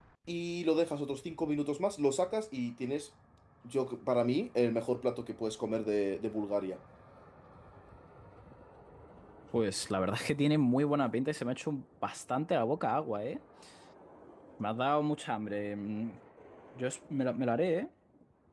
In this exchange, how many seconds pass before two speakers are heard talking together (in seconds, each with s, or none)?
none